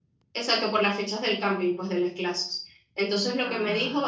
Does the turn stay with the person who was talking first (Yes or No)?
Yes